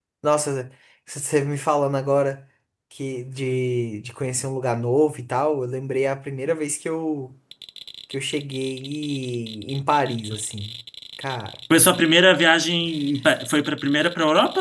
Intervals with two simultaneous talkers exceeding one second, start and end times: none

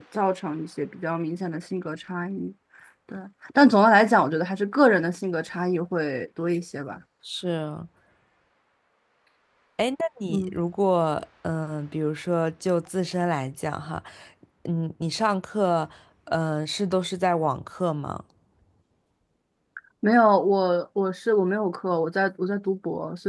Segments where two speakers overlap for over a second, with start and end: none

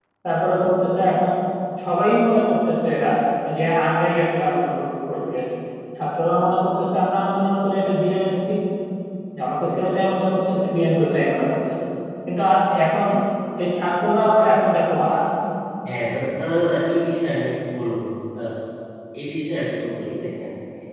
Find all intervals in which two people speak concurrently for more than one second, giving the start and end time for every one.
none

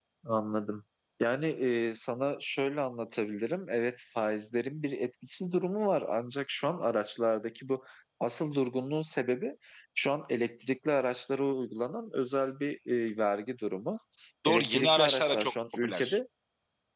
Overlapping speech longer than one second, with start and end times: 14.5-16.2

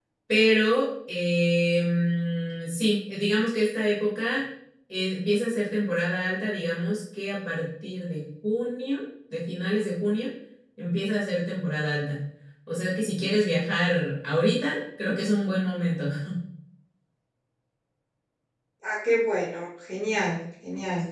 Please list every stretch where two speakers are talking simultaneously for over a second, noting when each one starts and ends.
none

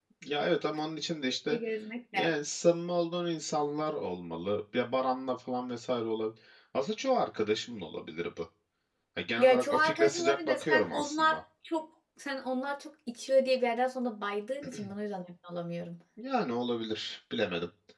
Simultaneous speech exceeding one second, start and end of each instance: 9.4-11.4

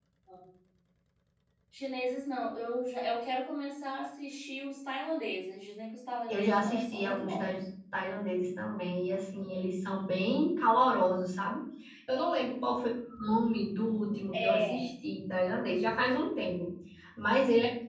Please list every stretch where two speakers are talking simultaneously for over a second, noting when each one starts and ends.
6.3-7.5

